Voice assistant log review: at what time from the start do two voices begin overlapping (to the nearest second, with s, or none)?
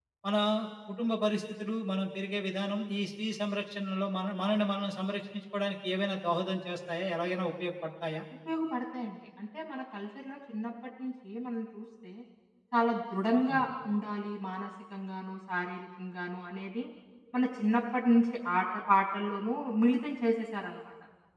none